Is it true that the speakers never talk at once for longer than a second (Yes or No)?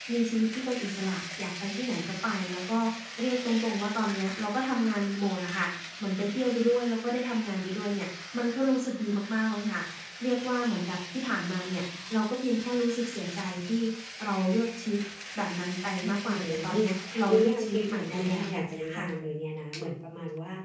No